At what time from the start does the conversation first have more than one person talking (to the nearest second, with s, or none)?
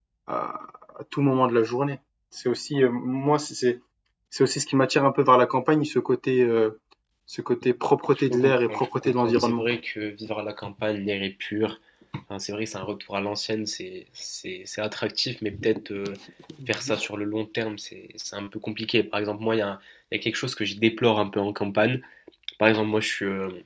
8 s